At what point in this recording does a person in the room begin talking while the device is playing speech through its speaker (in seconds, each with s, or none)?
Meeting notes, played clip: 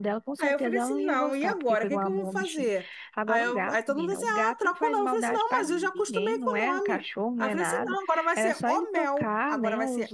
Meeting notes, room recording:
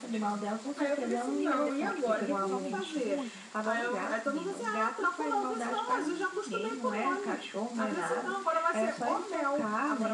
1.4 s